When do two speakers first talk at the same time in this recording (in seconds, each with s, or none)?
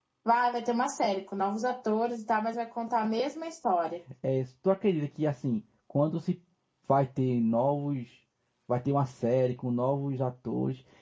none